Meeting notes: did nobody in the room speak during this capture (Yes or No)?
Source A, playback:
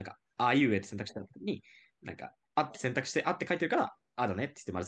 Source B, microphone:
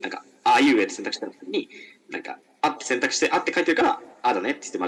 Yes